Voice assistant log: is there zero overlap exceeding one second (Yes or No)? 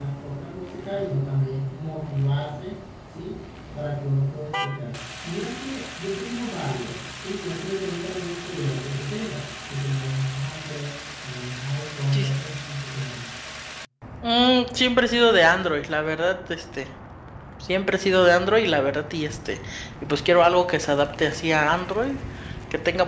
Yes